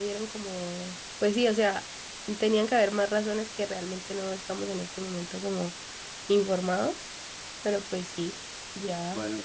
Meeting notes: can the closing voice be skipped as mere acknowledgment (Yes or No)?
No